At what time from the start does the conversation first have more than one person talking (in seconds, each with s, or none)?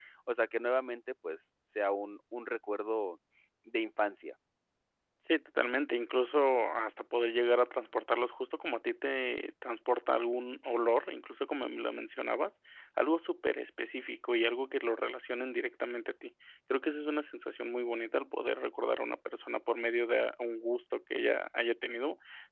none